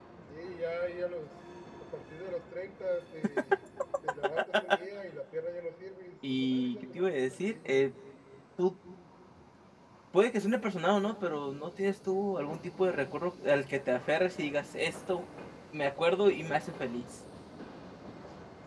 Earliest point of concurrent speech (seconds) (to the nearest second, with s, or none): 6 s